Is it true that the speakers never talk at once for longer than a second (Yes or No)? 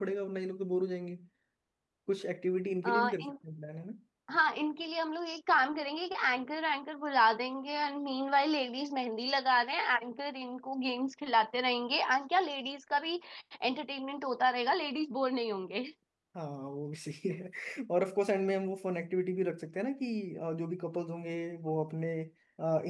Yes